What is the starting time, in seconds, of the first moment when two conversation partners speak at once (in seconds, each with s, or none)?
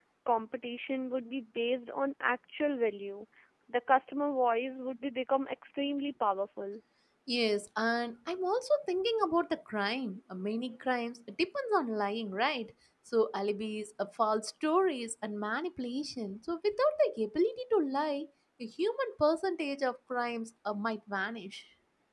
none